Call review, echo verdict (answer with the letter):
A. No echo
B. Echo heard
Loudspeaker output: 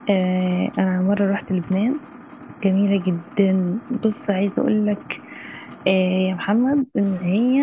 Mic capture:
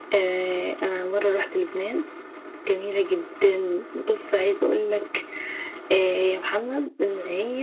B